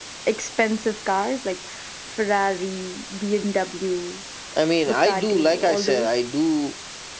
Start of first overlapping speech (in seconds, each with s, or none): 4.9 s